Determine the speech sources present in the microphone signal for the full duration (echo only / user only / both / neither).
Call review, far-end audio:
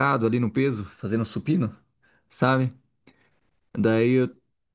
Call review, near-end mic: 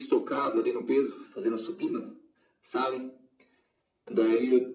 echo only